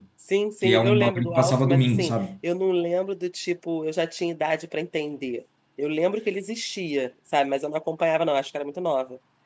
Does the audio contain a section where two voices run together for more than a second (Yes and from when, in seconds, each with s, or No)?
Yes, from 0.6 s